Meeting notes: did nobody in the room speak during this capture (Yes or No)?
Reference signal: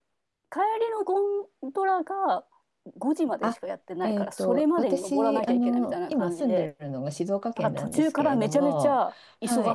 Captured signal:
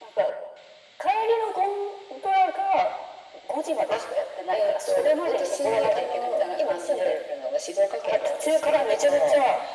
Yes